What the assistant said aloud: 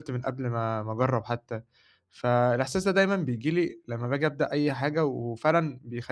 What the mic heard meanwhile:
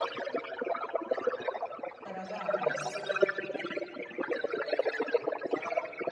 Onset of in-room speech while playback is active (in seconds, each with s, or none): 2.0 s